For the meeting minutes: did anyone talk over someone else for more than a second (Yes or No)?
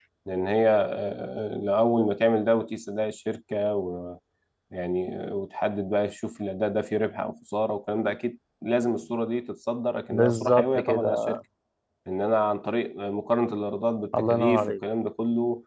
Yes